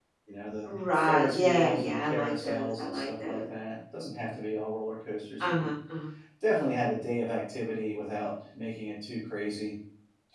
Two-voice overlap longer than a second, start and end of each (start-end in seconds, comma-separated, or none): 0.7-3.4